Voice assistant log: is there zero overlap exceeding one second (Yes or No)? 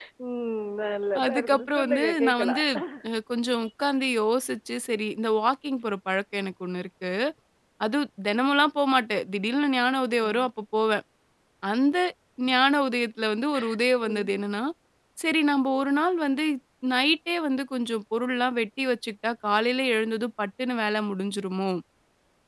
No